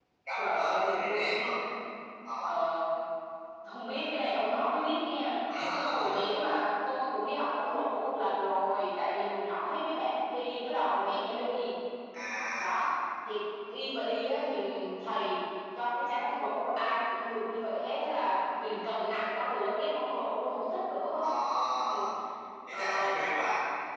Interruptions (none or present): present